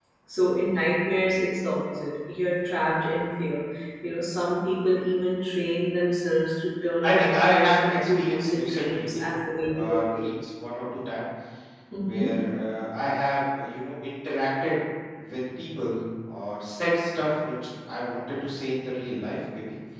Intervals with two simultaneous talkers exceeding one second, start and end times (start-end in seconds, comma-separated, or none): 7.0-9.2